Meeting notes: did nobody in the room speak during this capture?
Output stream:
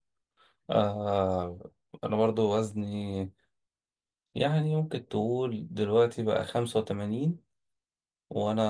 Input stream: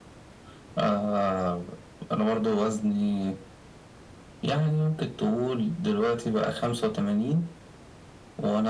Yes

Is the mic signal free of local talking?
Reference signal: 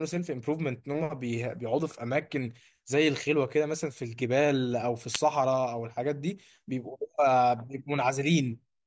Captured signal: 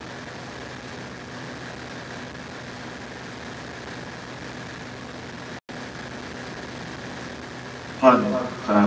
No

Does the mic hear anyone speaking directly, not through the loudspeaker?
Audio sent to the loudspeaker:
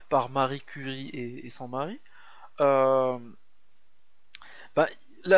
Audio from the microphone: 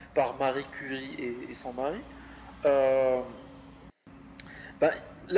No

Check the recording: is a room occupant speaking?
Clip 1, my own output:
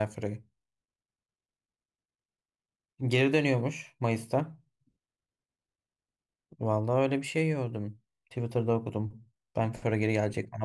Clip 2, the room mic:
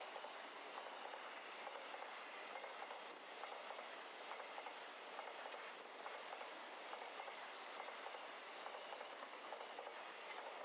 No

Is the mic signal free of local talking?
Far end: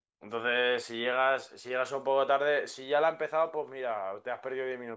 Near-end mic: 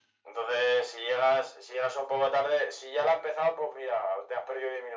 Yes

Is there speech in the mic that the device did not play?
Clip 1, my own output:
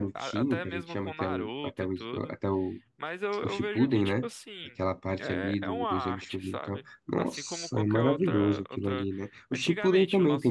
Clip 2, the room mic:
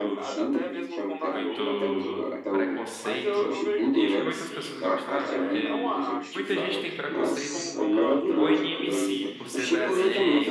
Yes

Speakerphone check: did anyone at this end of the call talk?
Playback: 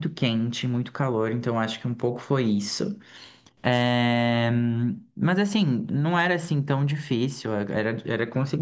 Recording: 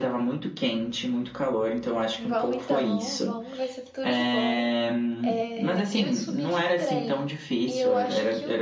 Yes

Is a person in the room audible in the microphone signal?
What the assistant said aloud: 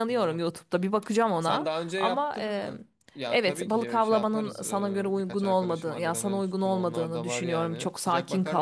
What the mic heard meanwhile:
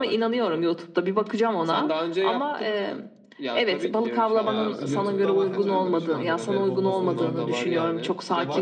Yes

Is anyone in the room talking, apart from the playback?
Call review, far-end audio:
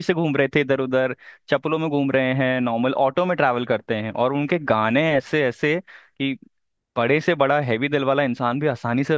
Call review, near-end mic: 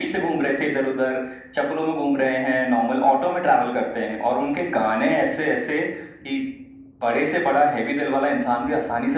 No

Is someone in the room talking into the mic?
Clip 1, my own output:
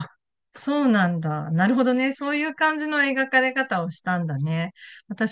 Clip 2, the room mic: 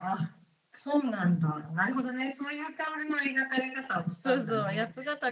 Yes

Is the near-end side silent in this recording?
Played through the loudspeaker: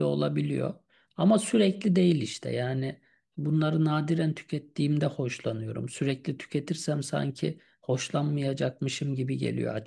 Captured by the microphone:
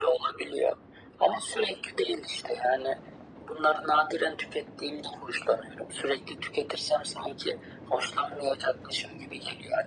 Yes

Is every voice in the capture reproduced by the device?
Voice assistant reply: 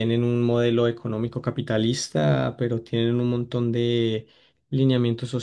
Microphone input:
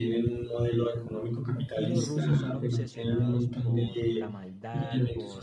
No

